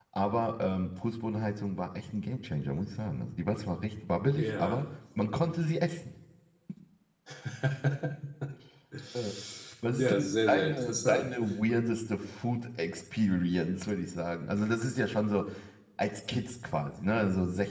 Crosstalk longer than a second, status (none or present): present